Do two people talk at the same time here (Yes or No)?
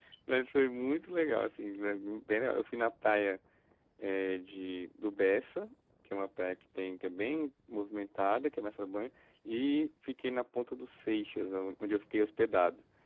No